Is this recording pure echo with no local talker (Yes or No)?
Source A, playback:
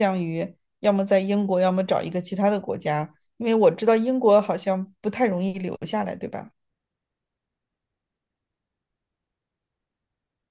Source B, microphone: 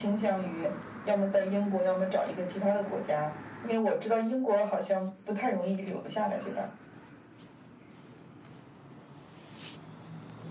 Yes